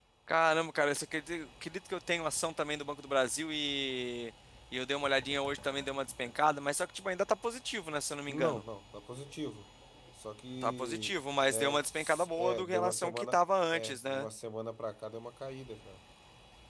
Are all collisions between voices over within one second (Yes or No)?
No